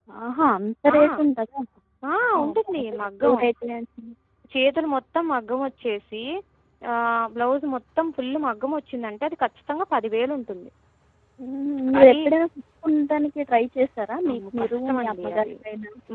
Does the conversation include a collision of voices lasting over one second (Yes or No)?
Yes